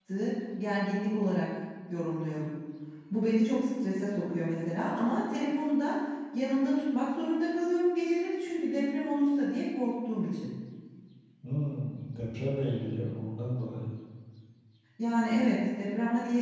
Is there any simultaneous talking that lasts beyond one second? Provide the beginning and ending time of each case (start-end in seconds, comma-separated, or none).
none